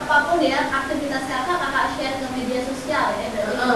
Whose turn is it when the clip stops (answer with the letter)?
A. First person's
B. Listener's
B